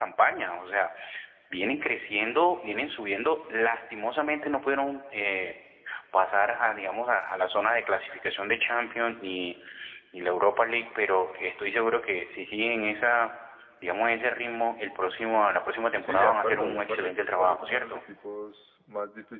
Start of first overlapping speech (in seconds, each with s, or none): 16.0 s